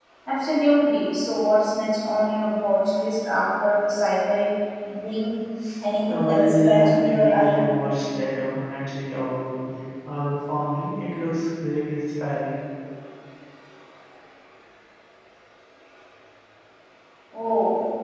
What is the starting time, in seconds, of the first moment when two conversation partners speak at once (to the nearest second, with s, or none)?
6 s